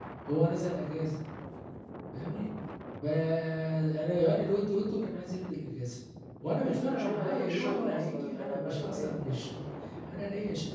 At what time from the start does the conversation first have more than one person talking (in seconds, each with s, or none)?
6.6 s